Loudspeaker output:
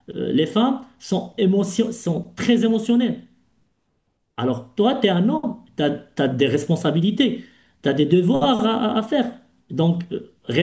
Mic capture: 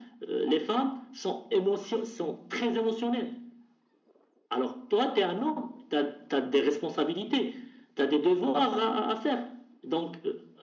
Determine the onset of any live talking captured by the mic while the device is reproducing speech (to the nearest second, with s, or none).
none